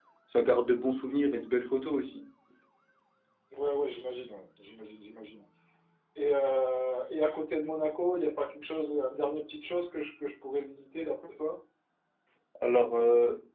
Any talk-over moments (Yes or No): No